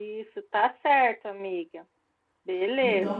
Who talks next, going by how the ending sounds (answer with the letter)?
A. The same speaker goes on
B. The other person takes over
B